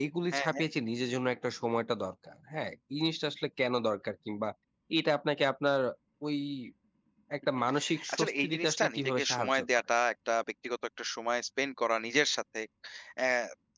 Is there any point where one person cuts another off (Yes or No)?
Yes